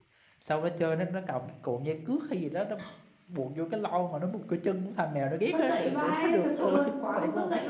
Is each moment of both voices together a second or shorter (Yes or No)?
No